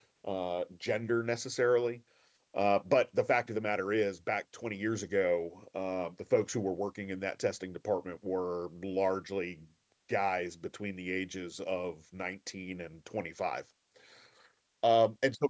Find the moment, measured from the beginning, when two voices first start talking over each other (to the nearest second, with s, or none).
none